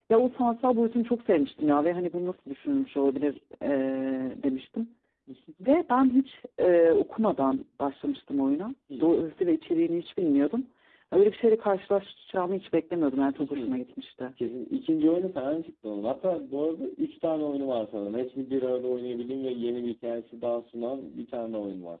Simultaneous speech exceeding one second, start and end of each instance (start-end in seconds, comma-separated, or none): none